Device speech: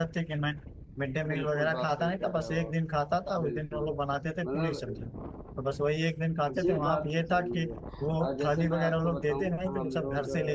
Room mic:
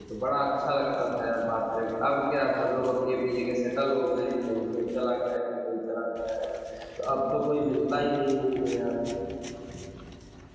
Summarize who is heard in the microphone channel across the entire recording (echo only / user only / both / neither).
user only